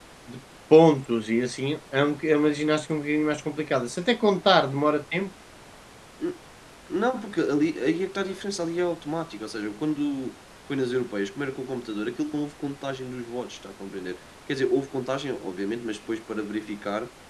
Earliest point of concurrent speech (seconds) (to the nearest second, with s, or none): none